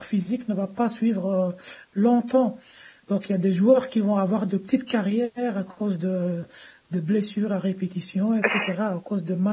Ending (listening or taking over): listening